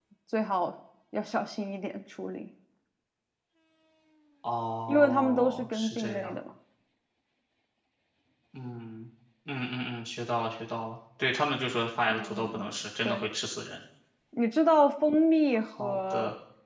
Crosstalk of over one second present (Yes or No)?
Yes